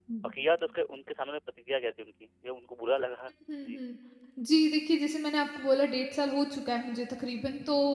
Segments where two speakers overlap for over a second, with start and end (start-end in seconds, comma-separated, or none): none